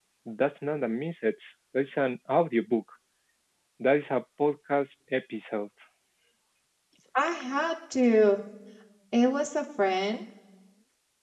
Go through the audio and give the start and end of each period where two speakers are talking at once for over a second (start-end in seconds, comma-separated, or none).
none